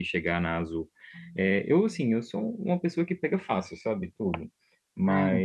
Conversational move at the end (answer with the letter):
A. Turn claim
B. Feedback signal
B